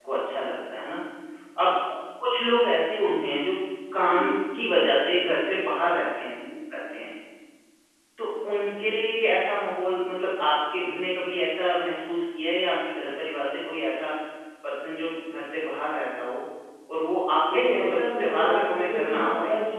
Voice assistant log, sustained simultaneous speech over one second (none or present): present